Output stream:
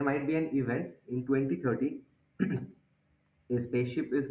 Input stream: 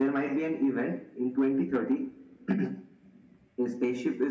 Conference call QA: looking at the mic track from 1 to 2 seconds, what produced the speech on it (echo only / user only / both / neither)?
echo only